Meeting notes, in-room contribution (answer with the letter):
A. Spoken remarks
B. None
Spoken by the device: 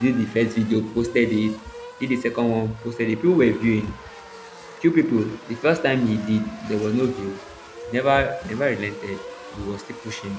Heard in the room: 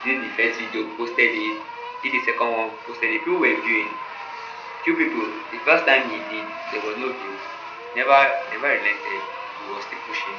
B